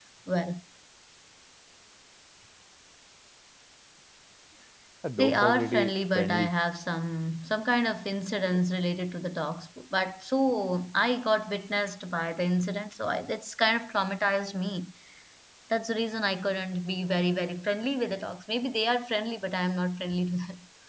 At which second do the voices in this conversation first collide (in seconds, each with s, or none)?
5.2 s